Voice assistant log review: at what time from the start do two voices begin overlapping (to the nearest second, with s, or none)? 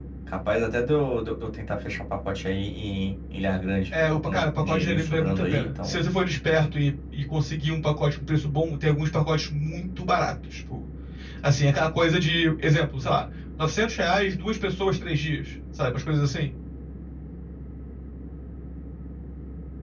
4 s